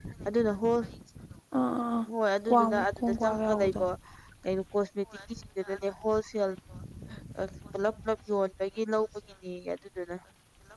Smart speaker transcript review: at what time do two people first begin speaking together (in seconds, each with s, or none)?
2.5 s